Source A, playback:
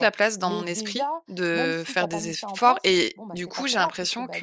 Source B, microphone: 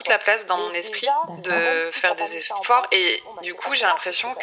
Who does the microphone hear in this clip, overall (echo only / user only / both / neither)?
both